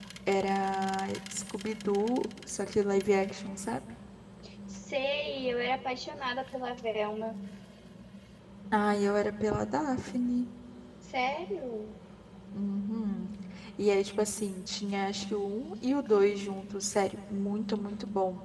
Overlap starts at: none

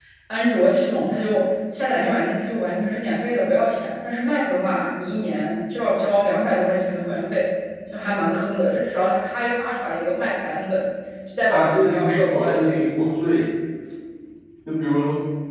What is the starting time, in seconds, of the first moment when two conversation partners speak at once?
11 s

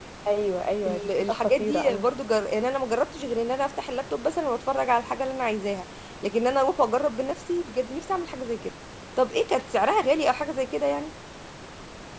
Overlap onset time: 1 s

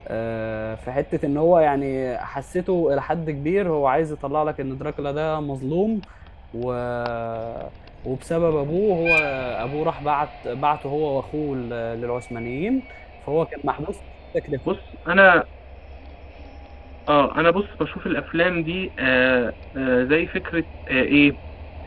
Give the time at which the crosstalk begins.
none

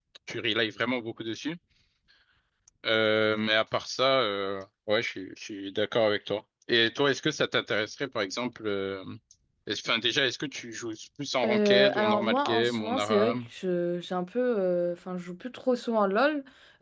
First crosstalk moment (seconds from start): 11 s

